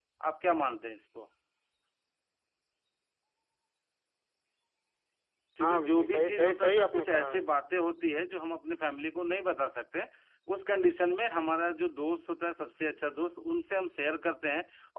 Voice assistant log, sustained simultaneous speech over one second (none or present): present